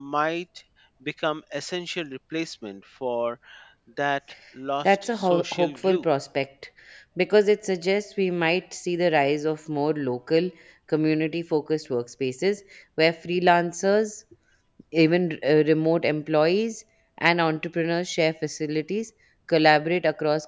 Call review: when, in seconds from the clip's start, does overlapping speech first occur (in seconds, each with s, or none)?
4.8 s